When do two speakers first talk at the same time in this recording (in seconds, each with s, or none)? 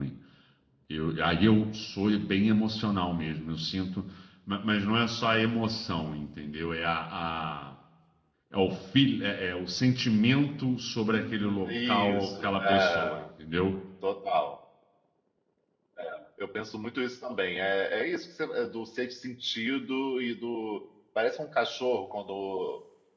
11.1 s